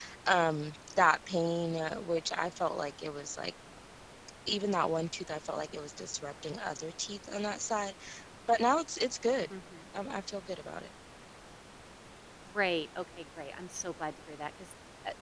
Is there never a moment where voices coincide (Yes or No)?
Yes